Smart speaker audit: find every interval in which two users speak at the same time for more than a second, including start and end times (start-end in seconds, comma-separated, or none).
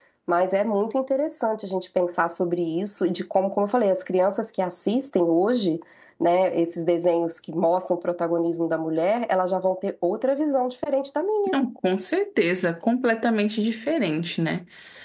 none